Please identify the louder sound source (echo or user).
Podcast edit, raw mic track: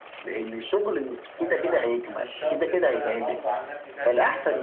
echo